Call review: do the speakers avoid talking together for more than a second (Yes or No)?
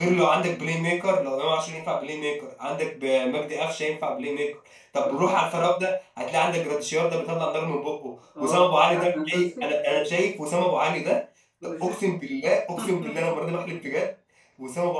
No